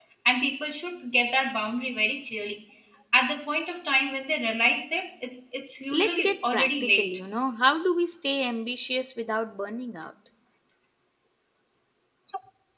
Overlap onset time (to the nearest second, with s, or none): 6 s